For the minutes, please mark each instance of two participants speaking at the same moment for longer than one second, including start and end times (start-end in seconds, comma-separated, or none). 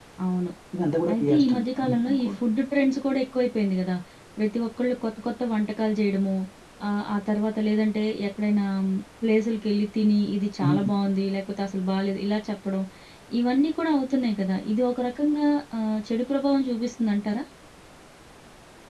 1.1-2.4